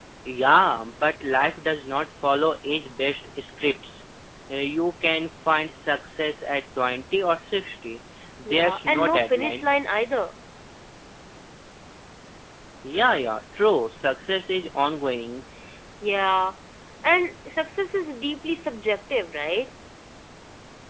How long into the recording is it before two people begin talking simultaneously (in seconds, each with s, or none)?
8.4 s